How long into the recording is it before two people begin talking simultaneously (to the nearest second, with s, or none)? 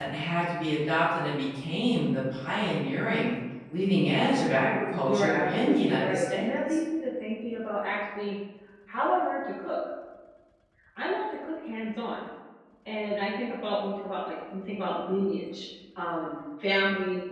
5 s